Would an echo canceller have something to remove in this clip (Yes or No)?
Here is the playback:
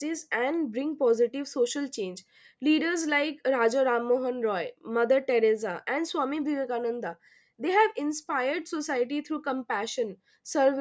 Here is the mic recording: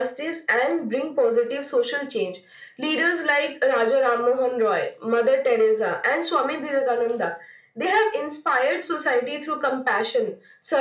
Yes